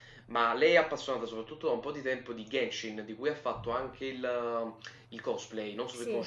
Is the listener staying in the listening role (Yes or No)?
No